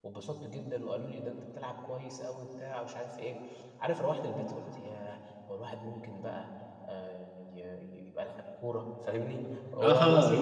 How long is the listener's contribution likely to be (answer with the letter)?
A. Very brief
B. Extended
B